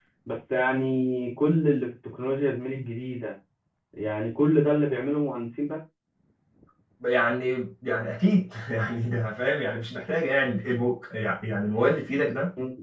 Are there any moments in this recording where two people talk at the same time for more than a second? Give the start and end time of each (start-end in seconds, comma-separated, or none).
none